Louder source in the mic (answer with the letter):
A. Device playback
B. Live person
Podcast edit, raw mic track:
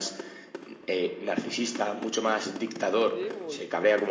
A